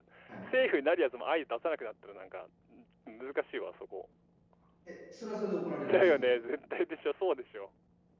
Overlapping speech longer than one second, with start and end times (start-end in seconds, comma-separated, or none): none